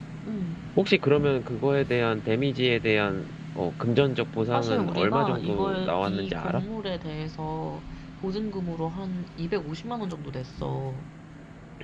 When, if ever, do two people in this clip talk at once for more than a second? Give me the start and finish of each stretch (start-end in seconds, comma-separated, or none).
4.5-6.6